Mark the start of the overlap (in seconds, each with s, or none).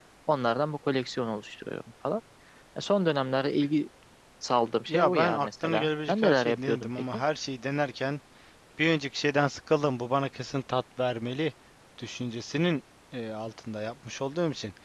4.9 s